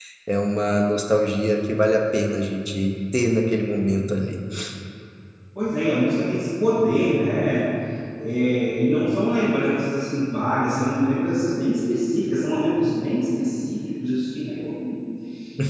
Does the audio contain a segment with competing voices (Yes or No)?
No